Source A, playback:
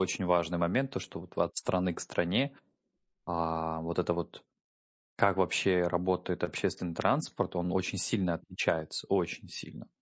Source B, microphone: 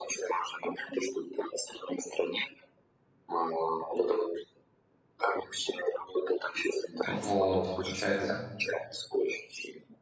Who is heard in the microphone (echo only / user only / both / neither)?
both